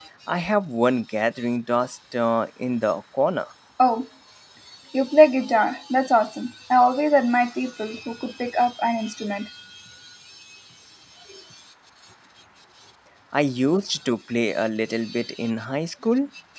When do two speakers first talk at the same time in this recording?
none

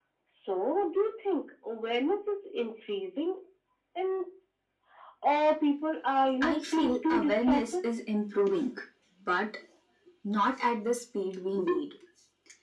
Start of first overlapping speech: 6.4 s

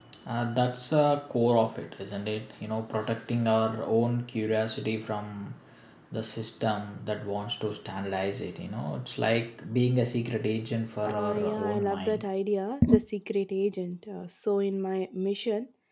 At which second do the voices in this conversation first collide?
11.1 s

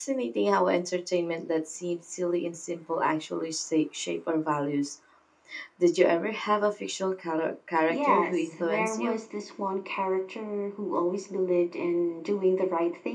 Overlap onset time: 7.9 s

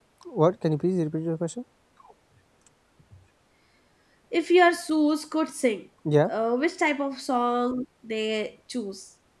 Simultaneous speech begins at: none

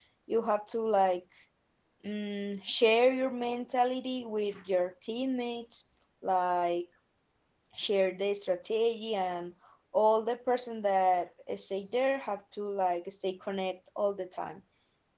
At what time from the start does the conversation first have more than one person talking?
none

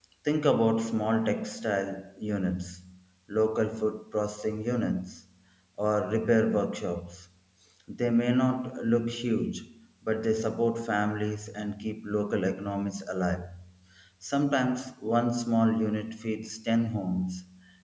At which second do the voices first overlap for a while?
none

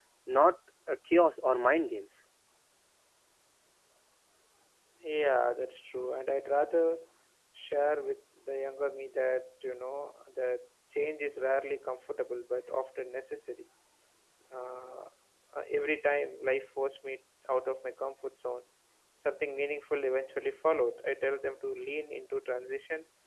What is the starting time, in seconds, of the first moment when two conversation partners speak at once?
none

